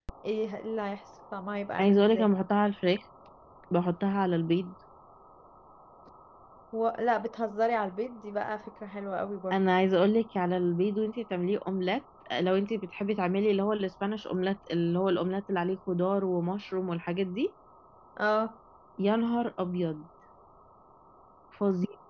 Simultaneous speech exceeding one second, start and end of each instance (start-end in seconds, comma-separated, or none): none